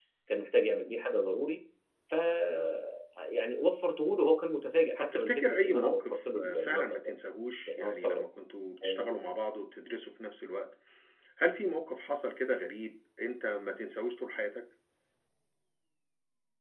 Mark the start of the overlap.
5.0 s

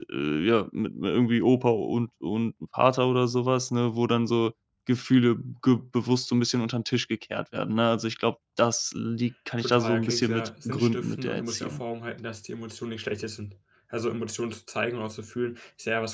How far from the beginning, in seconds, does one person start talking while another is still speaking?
9.6 s

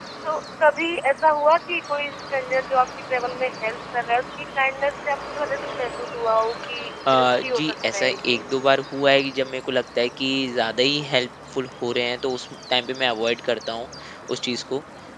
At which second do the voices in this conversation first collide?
7.1 s

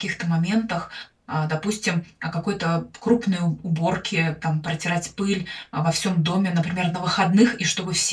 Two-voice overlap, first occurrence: none

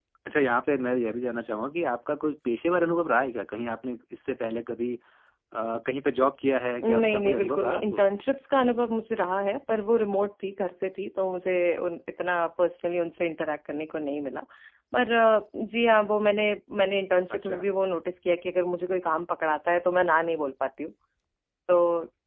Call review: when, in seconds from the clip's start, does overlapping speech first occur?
6.8 s

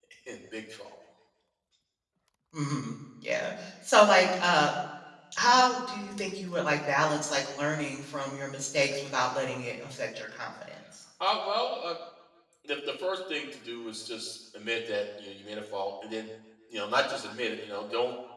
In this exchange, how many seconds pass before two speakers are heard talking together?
none

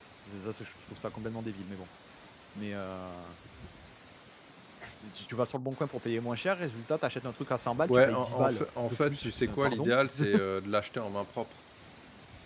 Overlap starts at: 7.9 s

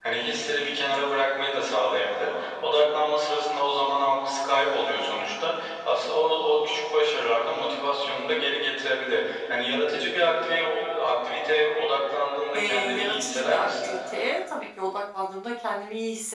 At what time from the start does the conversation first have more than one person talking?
12.5 s

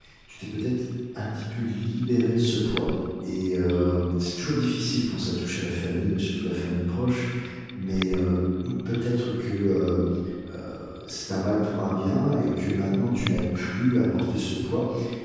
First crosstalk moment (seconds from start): none

